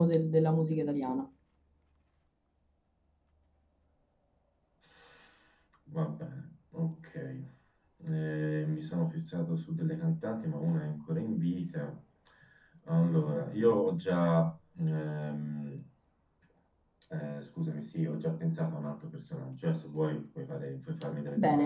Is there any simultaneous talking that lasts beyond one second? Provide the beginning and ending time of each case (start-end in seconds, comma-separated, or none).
none